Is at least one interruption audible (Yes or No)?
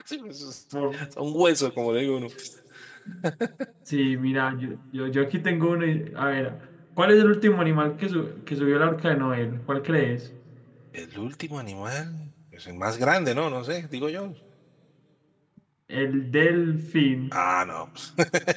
No